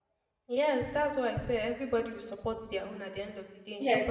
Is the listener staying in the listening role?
No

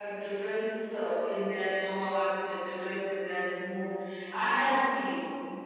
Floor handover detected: Yes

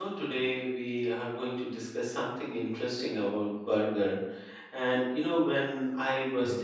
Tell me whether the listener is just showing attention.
Yes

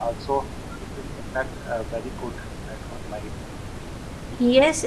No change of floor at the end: No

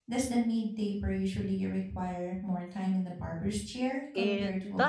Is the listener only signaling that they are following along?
No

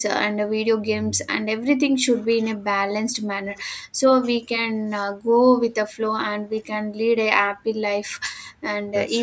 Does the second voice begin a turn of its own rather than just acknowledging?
No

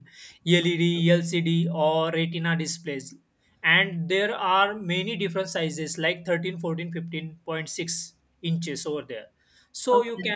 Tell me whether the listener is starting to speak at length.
No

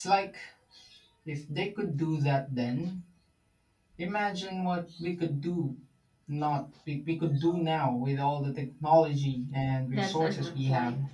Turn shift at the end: Yes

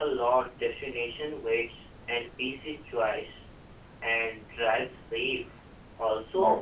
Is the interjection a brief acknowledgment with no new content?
Yes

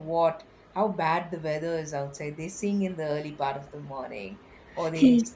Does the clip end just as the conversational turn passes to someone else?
No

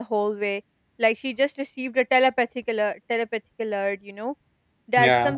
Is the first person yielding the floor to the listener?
No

